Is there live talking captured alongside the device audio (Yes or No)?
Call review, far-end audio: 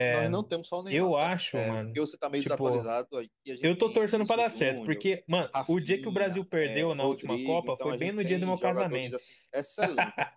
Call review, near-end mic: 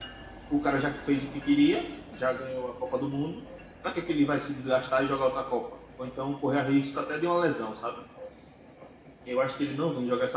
Yes